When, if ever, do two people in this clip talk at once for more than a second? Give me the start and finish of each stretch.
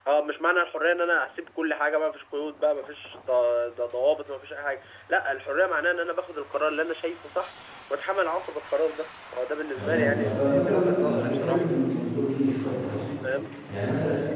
9.8-11.7

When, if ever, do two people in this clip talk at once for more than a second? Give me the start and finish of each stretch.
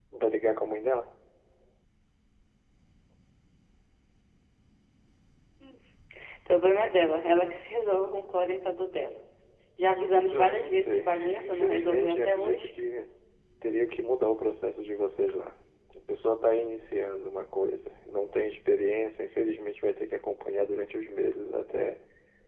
10.3-12.7

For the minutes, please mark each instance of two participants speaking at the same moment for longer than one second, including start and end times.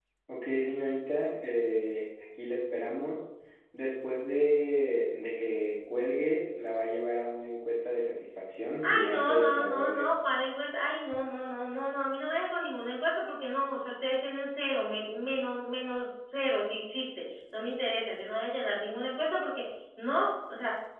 8.8-10.1

